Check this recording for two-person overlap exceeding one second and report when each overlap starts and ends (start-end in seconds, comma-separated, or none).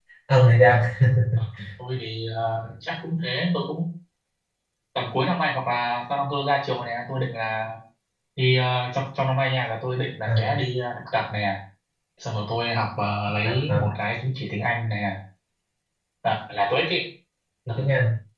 none